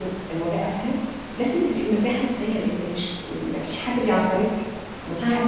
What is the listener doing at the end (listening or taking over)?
taking over